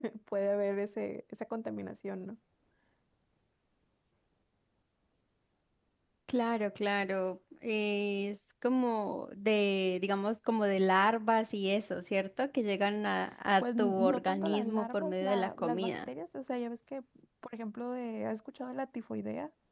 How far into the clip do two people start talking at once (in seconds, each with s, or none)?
13.6 s